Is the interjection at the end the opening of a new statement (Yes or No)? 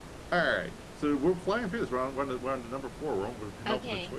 Yes